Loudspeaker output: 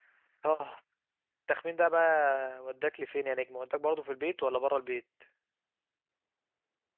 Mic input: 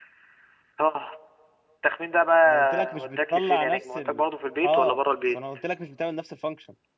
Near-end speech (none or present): present